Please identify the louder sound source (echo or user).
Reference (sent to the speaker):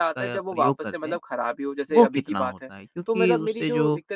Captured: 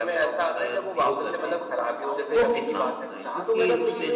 echo